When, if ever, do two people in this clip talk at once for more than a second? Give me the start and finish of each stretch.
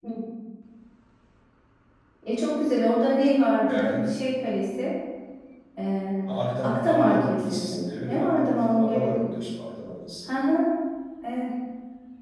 6.6-9.2

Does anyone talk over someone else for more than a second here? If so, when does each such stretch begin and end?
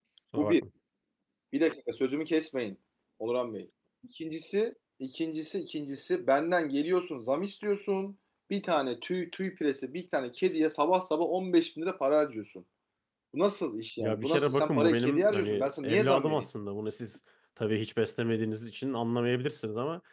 14.0-16.4

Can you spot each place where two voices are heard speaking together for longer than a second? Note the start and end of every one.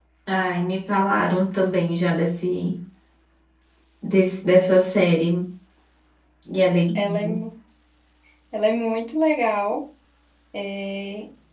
none

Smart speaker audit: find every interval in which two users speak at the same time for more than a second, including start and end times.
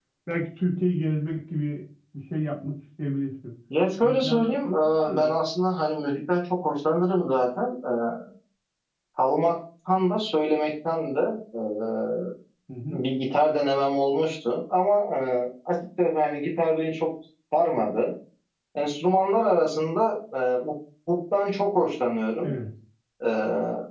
4.0-5.3

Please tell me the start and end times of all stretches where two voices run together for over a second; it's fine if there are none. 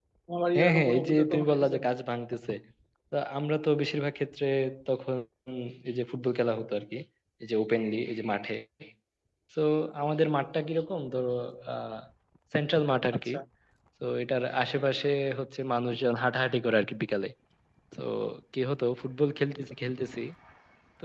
0.6-1.9

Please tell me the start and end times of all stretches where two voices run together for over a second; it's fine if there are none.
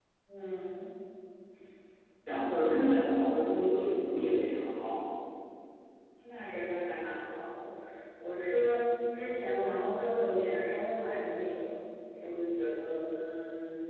none

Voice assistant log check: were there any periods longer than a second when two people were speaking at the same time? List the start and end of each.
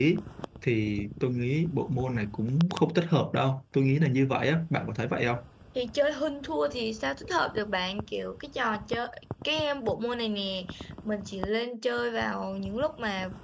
none

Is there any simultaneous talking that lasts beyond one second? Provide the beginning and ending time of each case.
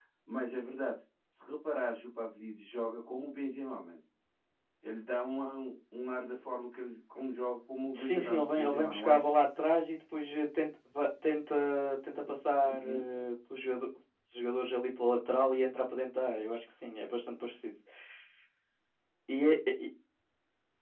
7.9-9.3

